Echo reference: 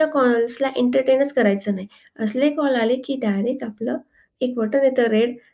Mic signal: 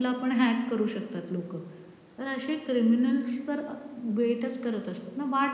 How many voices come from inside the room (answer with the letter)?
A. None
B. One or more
B